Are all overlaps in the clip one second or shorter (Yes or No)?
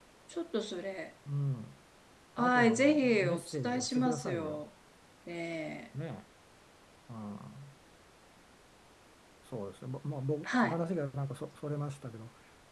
No